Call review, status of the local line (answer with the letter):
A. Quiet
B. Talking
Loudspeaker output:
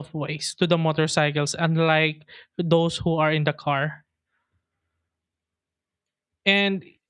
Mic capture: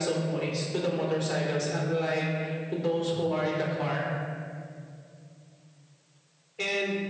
A